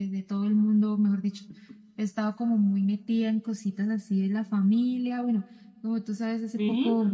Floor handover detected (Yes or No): No